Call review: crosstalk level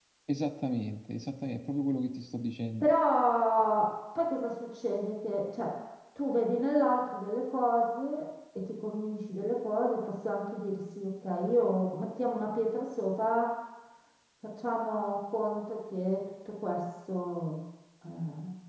none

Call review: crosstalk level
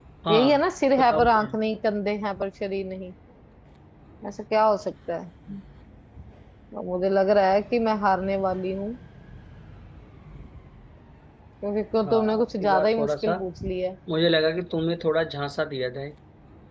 present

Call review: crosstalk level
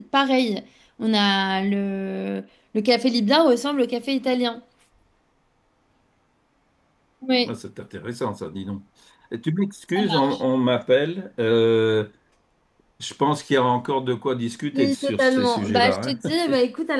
present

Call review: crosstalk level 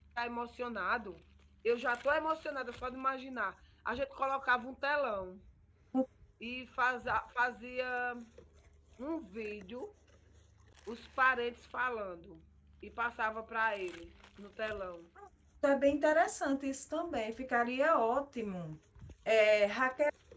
none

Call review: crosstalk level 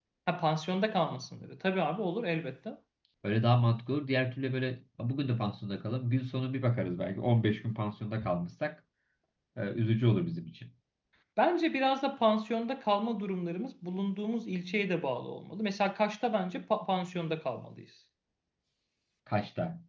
none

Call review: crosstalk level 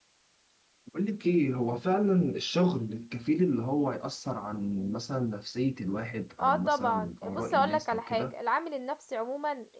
present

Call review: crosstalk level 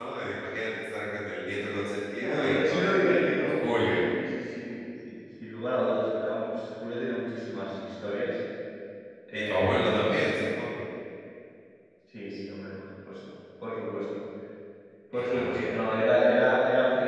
present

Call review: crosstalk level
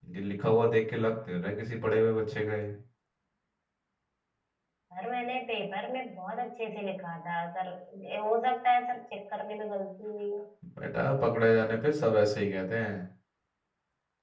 none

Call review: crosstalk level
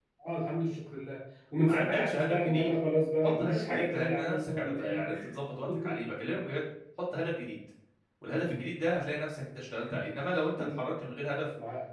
present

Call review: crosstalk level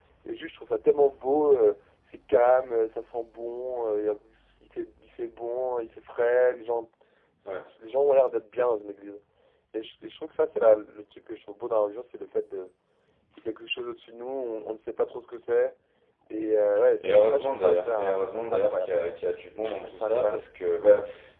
present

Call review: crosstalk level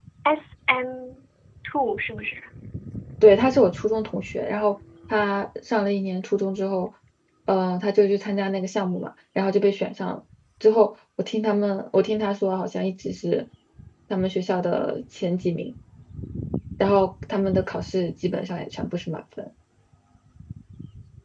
none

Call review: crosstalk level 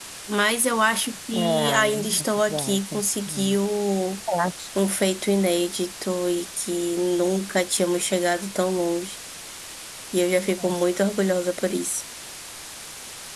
present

